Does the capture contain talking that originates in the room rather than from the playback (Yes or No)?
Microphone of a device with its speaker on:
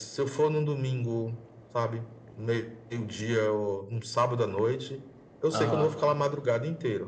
Yes